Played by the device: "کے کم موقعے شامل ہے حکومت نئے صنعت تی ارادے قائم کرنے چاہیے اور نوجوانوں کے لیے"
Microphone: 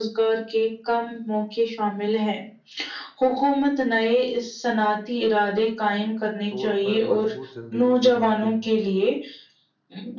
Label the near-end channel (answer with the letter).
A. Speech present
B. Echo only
A